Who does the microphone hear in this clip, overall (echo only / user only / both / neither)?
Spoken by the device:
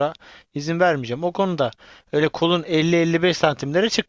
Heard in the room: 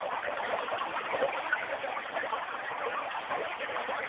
neither